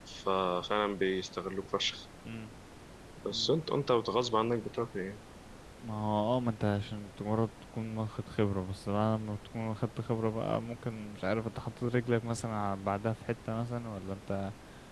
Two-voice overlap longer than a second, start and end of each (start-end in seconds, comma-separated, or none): none